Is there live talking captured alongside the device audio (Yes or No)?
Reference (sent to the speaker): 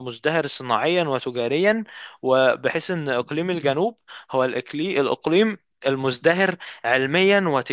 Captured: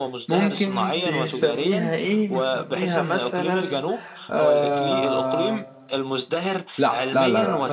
Yes